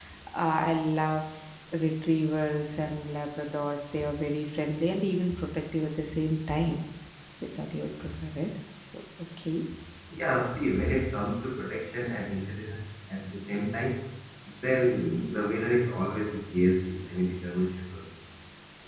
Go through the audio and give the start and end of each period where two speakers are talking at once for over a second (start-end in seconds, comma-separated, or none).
none